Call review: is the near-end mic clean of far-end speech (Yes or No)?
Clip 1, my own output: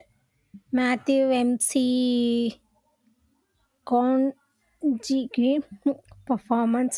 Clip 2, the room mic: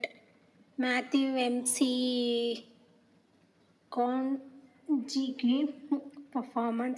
No